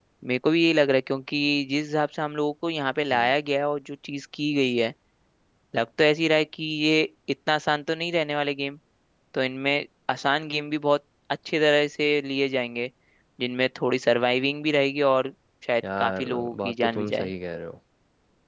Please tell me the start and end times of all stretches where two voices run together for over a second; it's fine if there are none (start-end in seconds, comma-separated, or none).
16.0-17.3